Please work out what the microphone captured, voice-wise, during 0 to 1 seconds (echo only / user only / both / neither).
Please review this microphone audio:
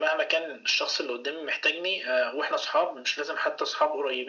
echo only